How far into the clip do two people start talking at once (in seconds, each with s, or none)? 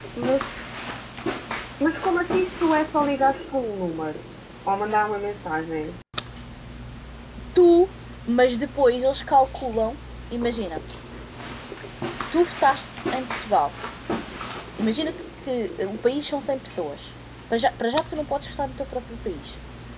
none